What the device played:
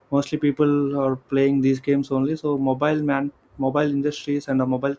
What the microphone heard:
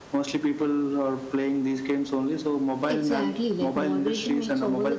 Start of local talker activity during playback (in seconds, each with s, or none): 2.8 s